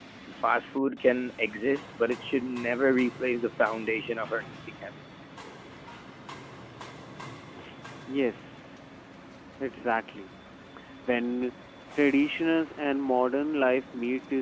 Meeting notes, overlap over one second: none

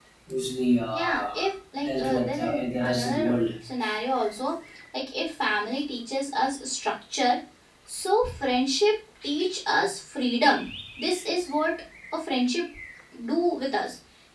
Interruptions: present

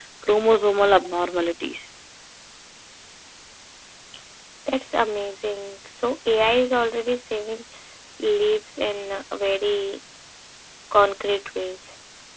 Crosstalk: none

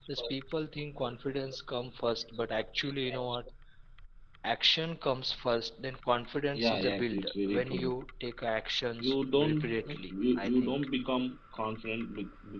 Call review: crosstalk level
present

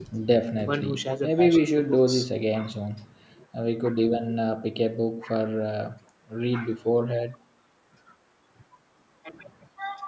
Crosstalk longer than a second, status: present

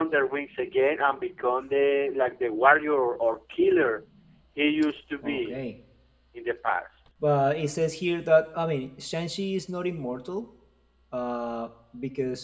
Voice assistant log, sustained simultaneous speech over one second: none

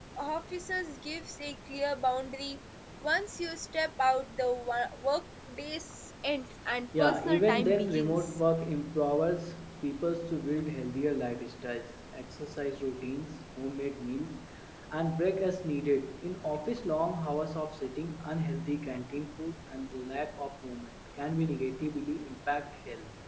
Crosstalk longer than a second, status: present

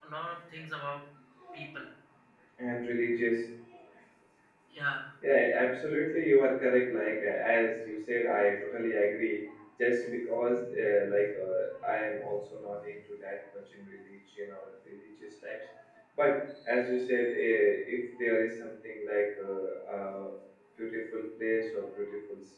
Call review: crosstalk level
none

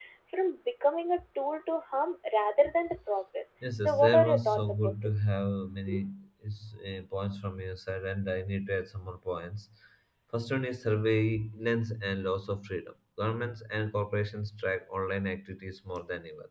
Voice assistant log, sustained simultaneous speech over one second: present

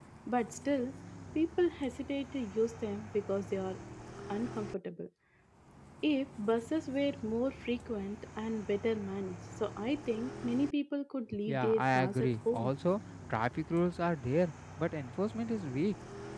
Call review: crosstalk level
present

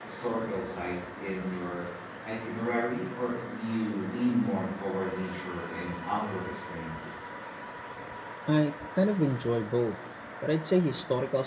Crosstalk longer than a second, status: none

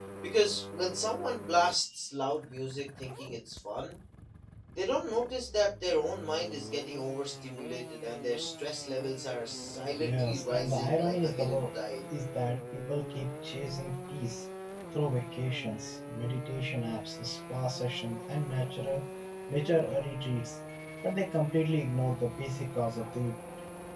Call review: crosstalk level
present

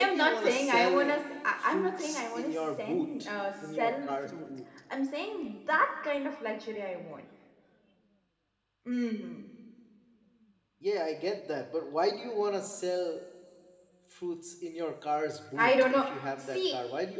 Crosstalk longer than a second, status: present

